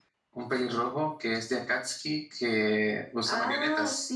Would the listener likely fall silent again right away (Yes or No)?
No